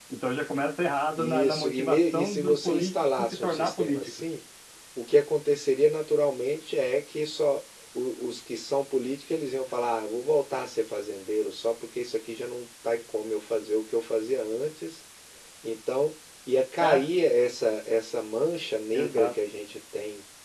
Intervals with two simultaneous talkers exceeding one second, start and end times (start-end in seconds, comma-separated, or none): 1.2-4.1